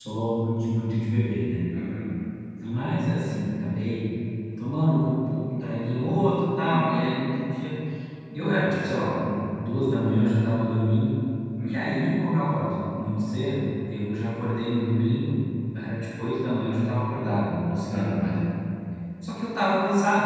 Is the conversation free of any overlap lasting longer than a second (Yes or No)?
Yes